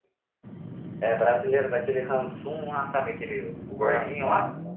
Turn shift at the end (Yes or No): Yes